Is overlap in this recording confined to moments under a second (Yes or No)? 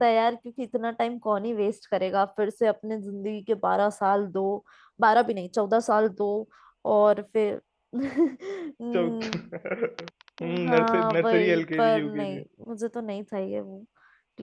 No